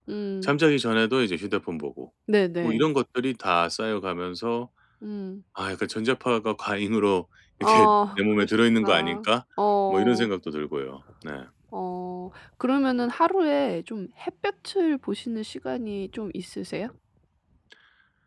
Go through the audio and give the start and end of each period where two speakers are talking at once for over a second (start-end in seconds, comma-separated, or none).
7.6-9.3